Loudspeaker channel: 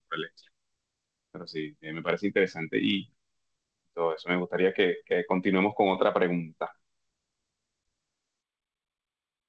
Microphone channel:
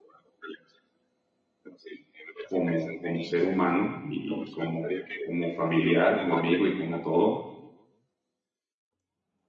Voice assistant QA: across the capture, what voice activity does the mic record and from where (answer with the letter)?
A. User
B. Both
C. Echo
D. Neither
B